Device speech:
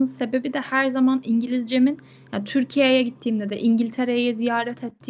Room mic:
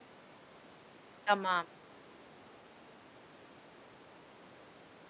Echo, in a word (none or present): none